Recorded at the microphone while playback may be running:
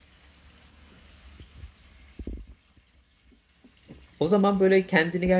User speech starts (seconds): 4.2 s

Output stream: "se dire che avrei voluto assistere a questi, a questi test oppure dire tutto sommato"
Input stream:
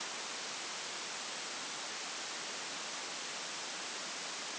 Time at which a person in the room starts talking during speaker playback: none

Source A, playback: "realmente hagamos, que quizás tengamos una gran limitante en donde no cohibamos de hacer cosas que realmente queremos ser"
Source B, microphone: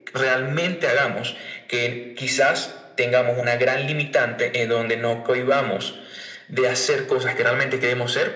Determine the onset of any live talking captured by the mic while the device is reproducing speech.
none

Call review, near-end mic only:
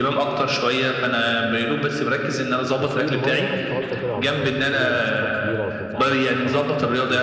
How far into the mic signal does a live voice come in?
2.8 s

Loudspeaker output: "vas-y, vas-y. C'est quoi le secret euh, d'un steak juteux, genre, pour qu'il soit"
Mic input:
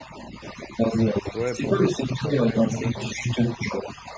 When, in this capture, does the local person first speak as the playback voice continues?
1.3 s

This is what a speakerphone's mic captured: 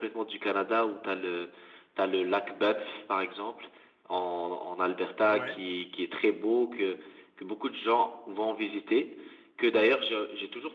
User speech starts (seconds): 5.3 s

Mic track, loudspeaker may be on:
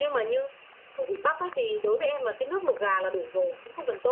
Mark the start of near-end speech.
none

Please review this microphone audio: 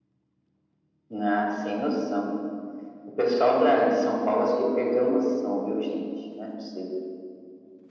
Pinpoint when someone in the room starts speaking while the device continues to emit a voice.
none

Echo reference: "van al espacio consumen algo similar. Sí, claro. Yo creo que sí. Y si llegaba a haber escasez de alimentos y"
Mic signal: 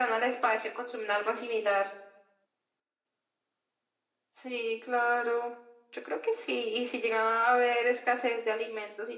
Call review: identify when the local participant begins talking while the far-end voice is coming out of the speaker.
none

